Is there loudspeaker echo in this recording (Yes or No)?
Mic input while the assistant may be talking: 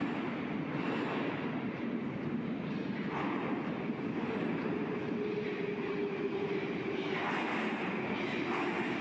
No